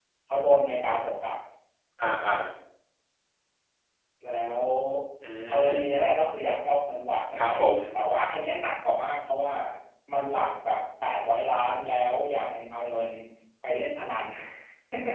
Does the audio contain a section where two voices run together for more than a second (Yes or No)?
No